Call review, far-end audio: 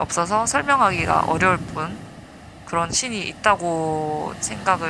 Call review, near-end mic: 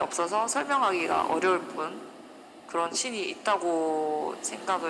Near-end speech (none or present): none